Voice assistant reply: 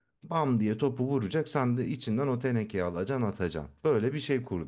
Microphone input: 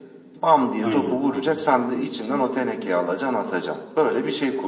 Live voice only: Aynen.

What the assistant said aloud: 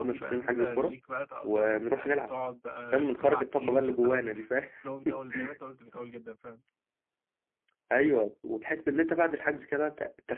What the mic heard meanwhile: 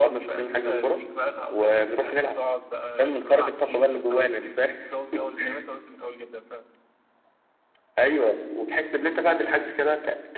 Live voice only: none

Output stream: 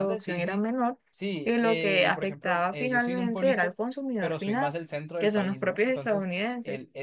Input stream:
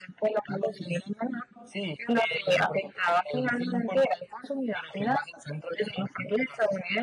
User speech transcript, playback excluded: none

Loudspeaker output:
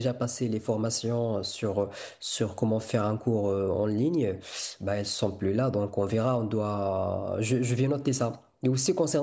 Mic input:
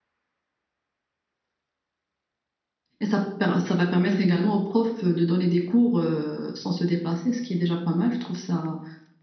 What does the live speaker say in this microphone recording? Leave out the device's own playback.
Et ça, per- ça va permettre également aux profs euh, de donner des cours euh, sans se déplacer, ce qui est déjà pas mal. Je trouve ça

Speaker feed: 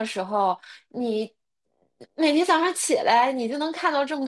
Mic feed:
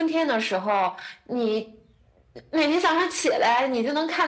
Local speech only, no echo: none

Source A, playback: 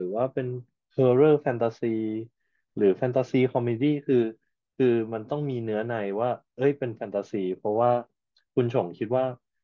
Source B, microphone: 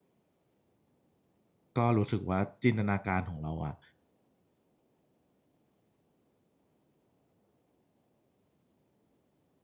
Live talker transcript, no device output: ก็รู้สึกว่าจินตนาการของเราอะ

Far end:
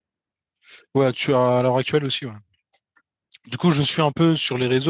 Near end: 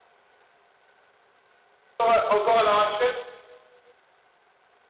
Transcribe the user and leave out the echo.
Ouais, Encore à l'heure actuelle?

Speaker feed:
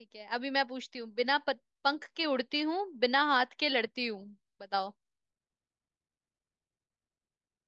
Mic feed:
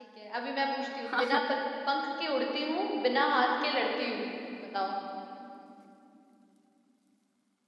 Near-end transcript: हाँ,

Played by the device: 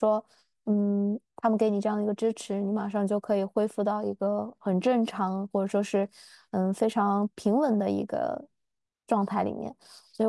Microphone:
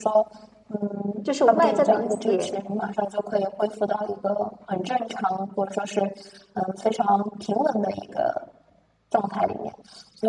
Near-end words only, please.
就是外在的一些

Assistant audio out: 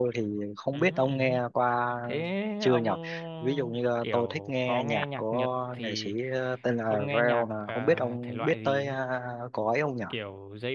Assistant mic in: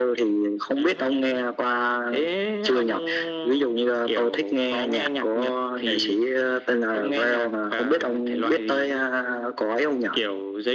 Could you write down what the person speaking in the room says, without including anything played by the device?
none

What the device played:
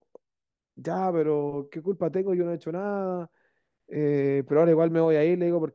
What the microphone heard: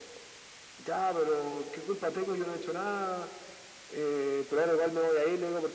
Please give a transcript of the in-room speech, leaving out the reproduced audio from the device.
none

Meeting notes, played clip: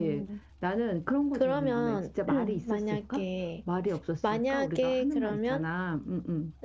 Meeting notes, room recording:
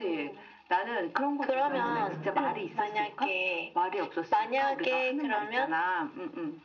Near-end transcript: 맞아.

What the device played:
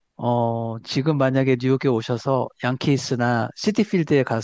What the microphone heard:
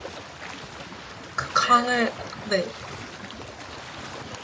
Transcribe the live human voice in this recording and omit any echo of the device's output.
그 강을, 네.

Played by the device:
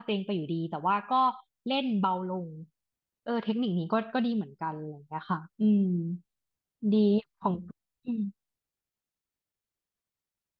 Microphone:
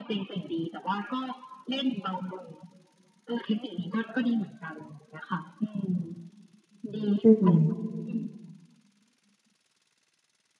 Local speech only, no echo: อืม

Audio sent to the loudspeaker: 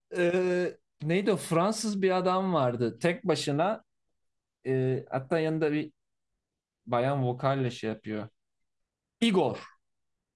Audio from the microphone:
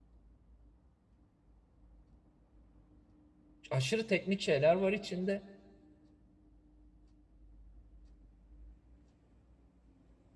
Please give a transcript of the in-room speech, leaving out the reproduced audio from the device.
aşırı teknik şeyler var içinde.

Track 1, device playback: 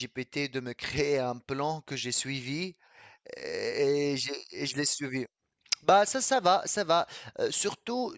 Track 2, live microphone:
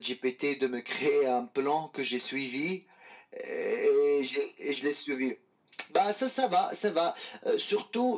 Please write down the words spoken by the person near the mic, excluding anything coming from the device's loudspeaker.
none

